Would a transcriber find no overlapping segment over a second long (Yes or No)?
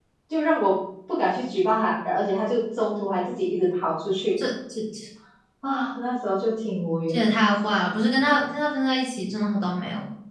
Yes